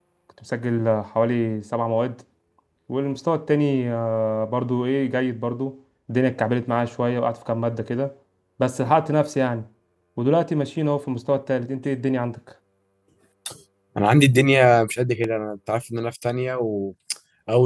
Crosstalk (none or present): none